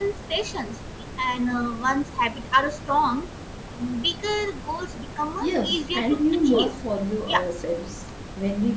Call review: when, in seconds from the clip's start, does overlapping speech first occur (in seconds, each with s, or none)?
5.4 s